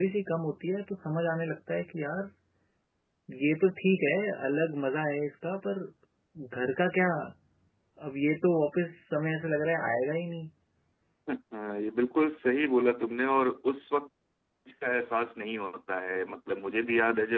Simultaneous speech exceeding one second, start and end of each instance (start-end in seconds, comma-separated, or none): none